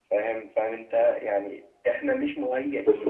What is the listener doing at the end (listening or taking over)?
taking over